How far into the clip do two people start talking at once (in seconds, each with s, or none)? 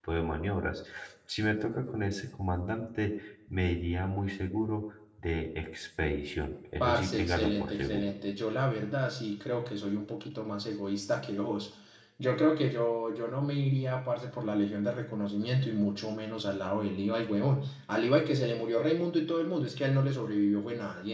6.8 s